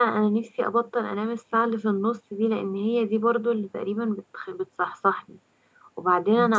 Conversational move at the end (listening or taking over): listening